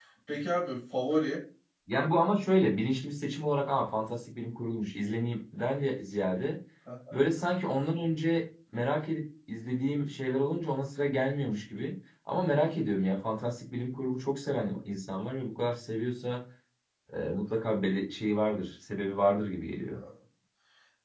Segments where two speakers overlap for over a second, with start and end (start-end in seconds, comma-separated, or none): none